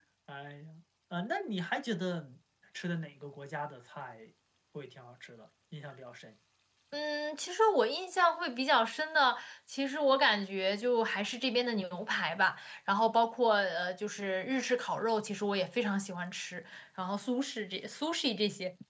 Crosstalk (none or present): none